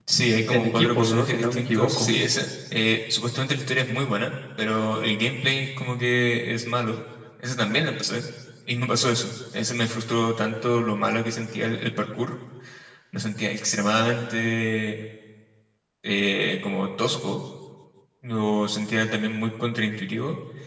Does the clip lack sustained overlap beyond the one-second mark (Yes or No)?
No